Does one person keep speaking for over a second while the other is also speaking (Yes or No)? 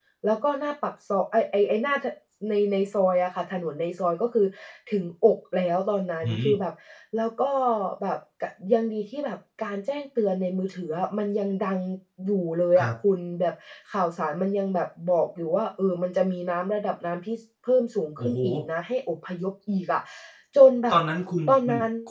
No